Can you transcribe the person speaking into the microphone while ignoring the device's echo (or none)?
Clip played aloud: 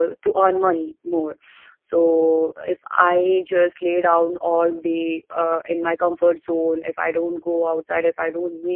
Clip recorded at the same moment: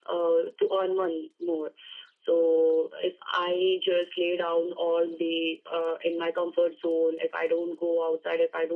none